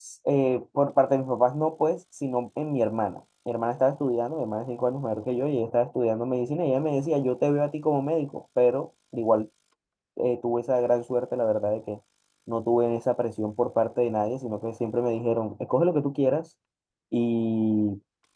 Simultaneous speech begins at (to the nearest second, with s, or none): none